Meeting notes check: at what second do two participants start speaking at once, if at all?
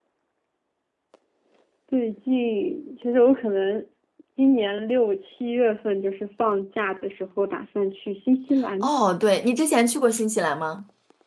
none

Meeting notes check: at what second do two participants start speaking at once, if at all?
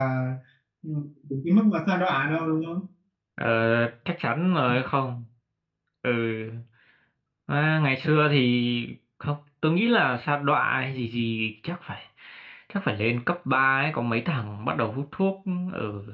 none

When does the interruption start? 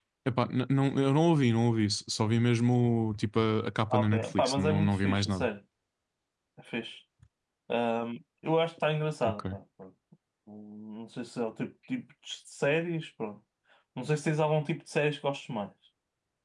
3.9 s

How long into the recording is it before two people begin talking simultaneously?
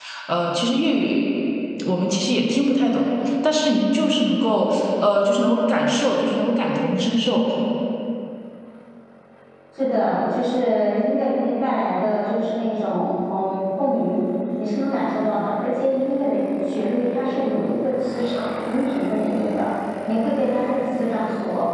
none

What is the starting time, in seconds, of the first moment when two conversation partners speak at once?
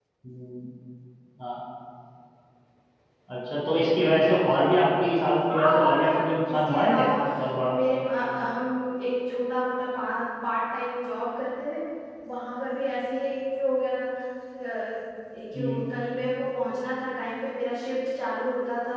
5.5 s

